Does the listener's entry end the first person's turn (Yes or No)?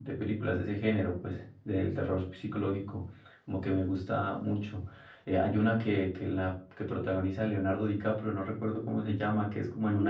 Yes